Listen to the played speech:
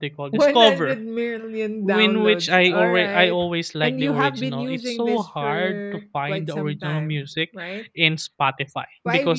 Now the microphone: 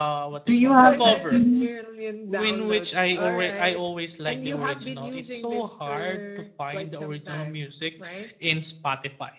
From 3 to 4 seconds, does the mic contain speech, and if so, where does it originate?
echo only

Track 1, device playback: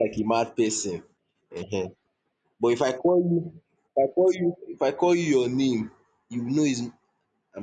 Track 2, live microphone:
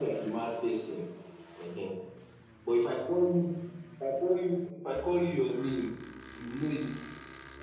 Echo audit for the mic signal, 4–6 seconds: echo only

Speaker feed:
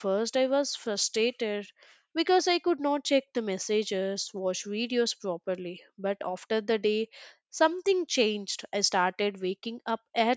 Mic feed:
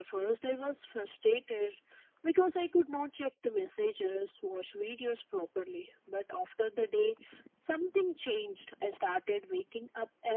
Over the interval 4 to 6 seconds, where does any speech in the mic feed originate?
echo only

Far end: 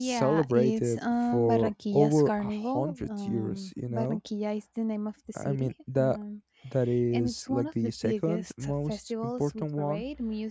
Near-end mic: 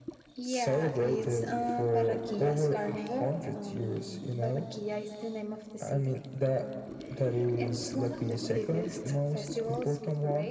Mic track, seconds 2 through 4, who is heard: echo only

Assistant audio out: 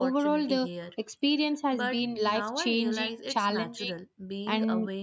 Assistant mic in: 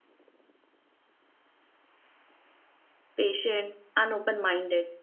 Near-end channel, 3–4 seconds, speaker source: user only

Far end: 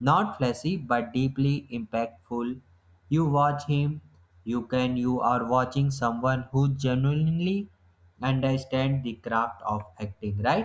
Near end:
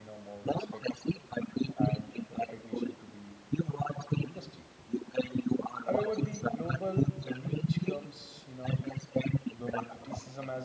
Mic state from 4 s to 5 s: both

